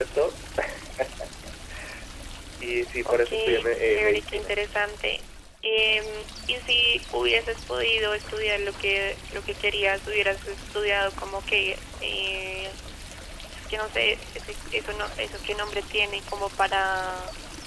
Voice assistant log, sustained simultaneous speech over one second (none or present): present